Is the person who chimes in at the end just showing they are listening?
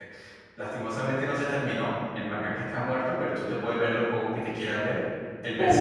Yes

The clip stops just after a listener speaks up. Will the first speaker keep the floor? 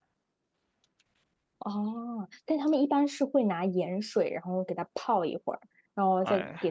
Yes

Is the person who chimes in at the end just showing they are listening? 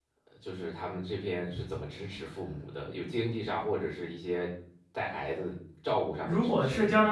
No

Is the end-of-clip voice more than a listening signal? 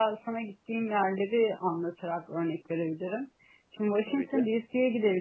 No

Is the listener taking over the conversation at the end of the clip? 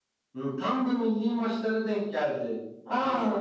No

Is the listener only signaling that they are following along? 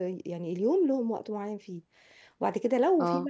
Yes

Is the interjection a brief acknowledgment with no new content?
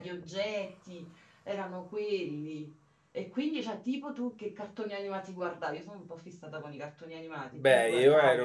No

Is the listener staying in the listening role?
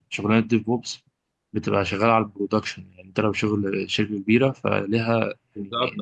No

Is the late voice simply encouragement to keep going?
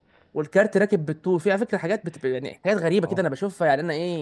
Yes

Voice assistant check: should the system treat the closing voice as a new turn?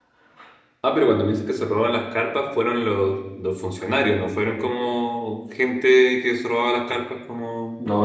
Yes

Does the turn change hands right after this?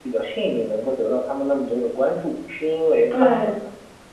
No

